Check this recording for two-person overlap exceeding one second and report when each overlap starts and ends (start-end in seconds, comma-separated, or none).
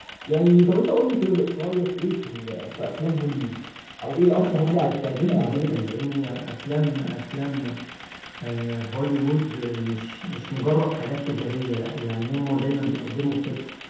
4.4-6.0